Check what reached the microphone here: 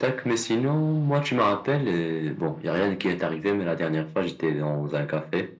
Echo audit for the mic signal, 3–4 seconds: echo only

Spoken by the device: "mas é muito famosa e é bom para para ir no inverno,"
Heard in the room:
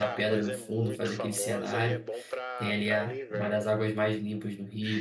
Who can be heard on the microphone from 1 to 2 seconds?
both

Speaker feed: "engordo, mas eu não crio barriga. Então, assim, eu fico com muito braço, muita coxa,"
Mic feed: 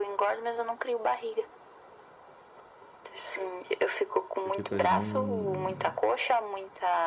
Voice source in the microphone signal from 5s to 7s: both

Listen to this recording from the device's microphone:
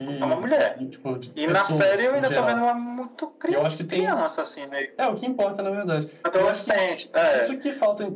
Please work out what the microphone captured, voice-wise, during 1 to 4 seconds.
both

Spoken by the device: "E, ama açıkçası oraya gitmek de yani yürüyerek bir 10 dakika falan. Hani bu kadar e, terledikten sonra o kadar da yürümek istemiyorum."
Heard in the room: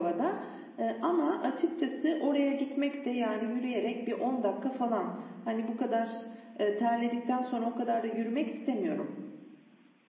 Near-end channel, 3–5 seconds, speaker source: echo only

